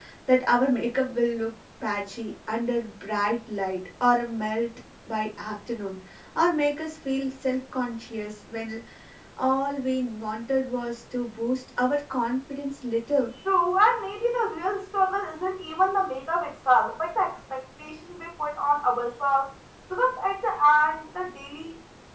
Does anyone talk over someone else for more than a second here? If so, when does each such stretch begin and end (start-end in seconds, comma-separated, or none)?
none